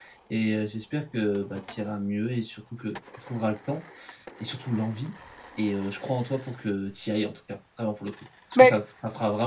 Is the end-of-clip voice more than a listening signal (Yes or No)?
No